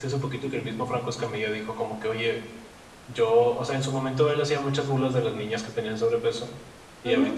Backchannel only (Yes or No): Yes